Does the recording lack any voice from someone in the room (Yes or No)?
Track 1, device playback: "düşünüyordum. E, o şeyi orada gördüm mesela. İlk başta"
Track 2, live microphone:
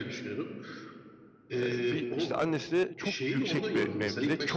No